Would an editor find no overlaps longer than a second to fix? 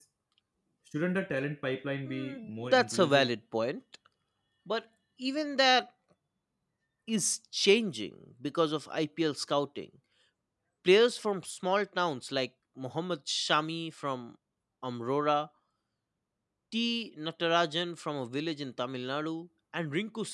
No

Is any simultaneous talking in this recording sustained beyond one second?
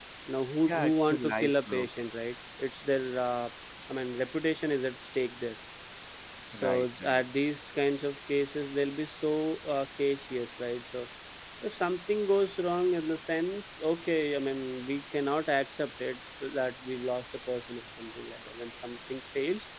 Yes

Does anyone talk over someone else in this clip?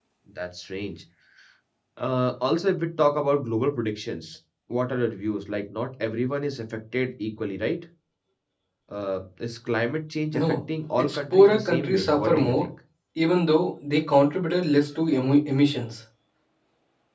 Yes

